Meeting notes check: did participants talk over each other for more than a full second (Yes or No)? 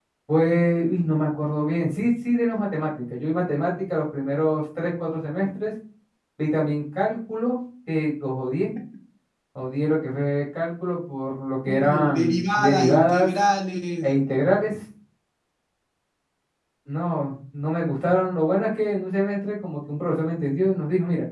Yes